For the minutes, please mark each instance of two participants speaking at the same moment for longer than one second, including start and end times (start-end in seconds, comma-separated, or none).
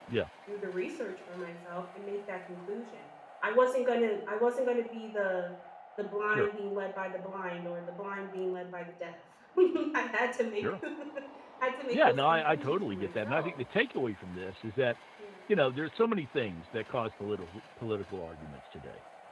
11.9-13.5